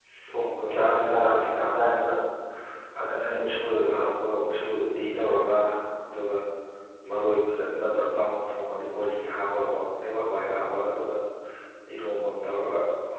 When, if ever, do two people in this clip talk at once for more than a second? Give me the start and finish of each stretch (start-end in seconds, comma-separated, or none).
0.8-2.1